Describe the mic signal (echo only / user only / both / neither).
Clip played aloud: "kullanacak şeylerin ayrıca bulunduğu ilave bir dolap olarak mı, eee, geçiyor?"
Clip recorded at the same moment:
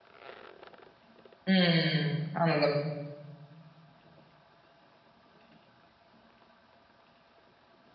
user only